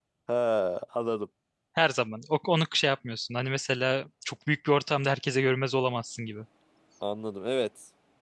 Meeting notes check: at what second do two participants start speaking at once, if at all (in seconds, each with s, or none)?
none